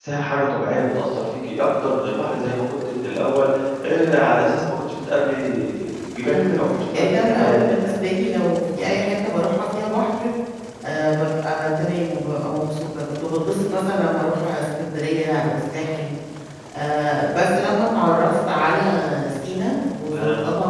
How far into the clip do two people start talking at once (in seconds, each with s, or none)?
6.2 s